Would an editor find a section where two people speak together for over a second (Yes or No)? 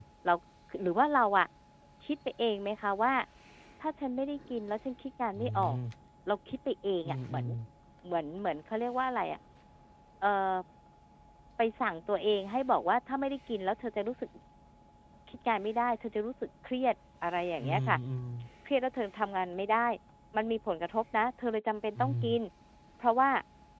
No